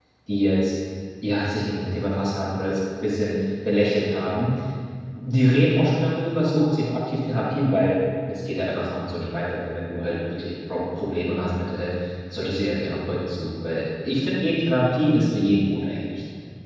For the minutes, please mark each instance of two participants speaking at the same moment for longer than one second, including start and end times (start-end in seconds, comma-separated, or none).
none